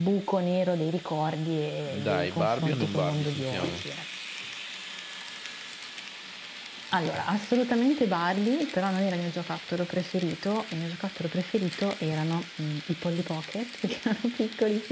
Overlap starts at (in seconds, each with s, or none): 1.9 s